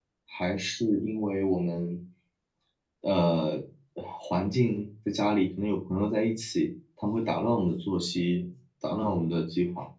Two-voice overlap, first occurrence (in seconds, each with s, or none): none